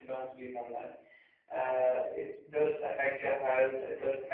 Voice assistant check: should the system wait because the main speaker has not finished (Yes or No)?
Yes